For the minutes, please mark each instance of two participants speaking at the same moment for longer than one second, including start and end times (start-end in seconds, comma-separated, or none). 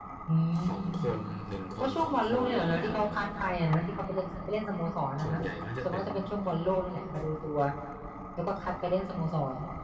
1.8-3.0